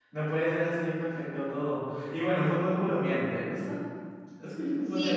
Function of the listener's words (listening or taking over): taking over